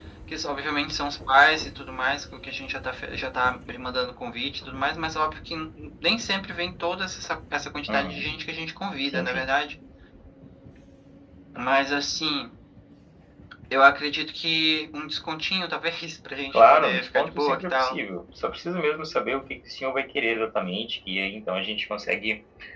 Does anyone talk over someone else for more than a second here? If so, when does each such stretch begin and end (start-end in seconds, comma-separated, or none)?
16.5-18.0